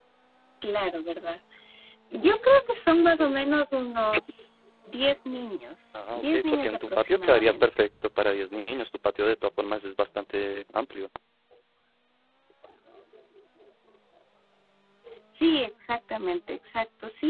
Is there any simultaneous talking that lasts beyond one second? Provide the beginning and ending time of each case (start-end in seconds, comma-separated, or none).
6.0-7.7